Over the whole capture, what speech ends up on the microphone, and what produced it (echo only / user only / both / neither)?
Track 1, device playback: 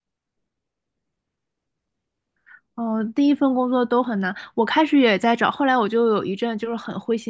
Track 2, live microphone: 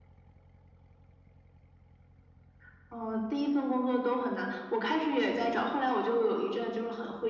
echo only